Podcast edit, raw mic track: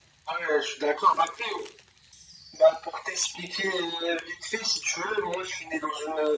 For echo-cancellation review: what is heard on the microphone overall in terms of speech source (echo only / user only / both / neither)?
echo only